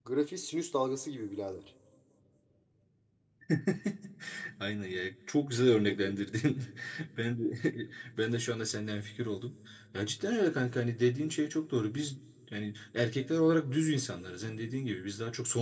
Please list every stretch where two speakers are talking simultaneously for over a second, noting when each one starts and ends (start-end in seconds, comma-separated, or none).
none